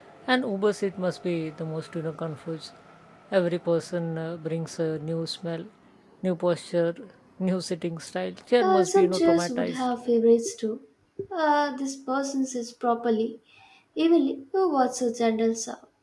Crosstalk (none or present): present